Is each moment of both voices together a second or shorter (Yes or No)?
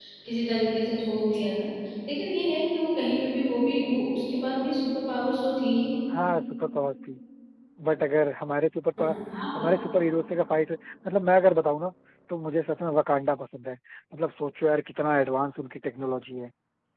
Yes